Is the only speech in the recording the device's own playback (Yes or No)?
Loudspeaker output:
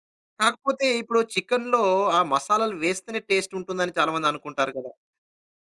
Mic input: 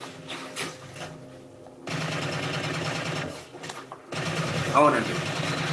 No